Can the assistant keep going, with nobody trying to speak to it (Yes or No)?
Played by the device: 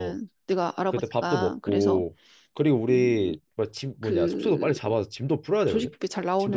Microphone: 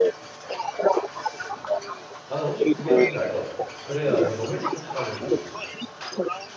No